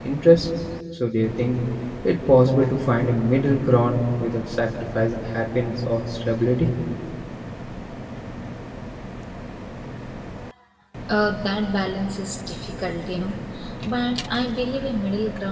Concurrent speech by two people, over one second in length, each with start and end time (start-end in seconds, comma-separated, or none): none